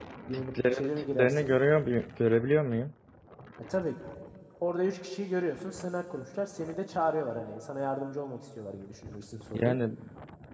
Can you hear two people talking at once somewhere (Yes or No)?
Yes